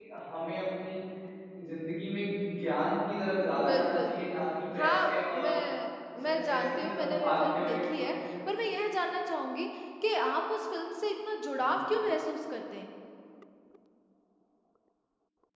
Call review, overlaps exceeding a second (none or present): present